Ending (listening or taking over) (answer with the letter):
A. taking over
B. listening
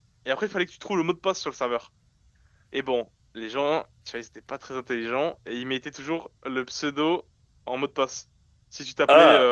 B